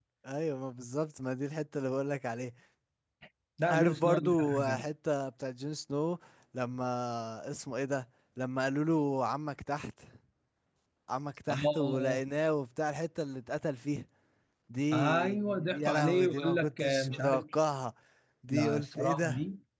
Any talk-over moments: Yes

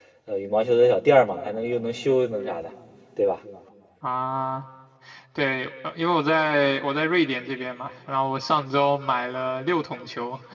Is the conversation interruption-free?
Yes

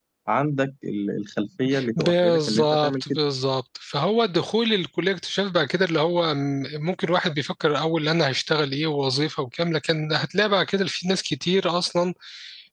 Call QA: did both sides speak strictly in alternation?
No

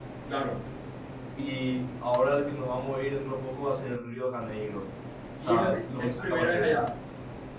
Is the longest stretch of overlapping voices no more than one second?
No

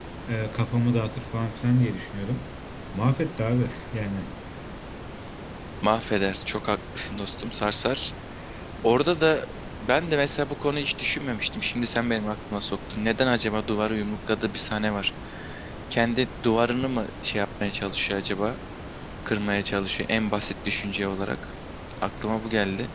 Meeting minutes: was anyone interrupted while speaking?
No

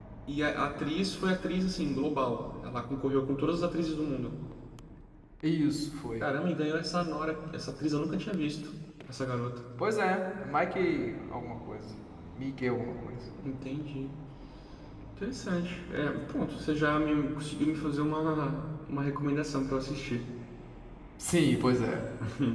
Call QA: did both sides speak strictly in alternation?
Yes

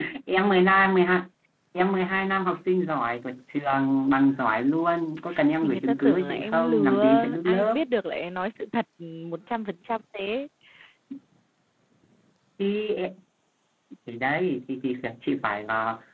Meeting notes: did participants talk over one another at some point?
Yes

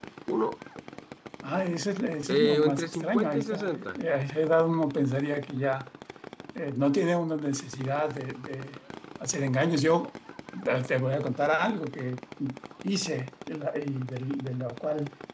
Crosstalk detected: Yes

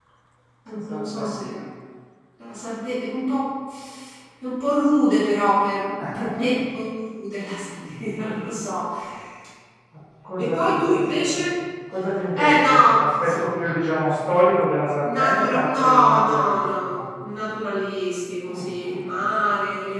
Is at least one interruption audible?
Yes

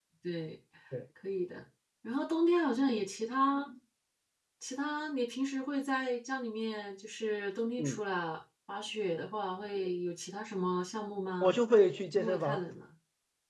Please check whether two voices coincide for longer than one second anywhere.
No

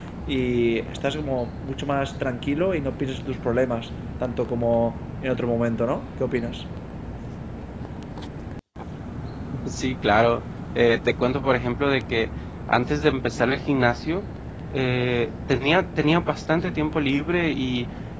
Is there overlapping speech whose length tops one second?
No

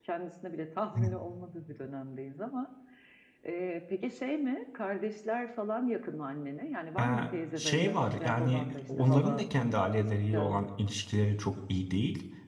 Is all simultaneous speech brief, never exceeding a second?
No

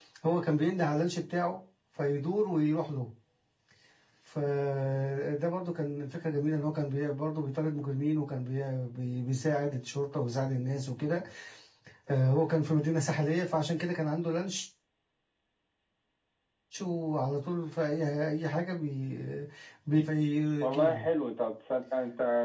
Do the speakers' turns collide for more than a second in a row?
No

